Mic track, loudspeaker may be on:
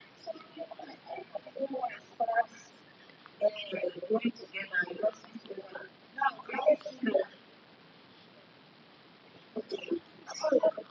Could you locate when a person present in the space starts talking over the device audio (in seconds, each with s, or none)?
none